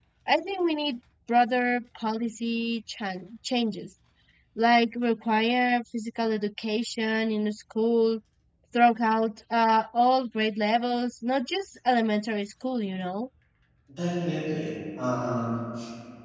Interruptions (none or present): none